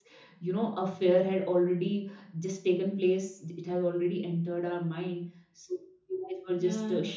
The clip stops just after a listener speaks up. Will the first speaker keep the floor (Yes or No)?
Yes